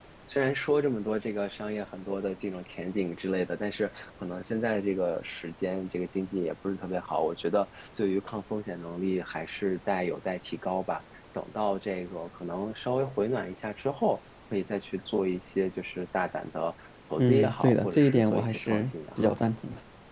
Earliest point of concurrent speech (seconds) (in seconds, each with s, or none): 17.2 s